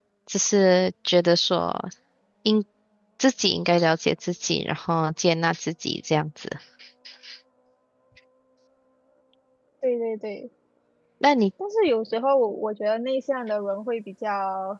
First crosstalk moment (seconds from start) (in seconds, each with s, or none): none